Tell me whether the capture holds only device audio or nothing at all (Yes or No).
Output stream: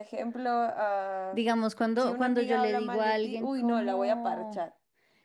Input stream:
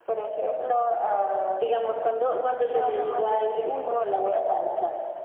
Yes